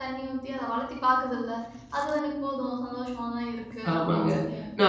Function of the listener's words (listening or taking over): taking over